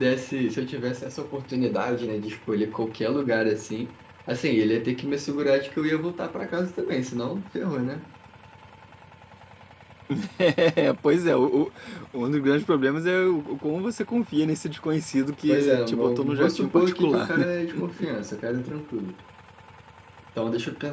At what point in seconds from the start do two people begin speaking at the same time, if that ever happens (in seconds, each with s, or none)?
15.5 s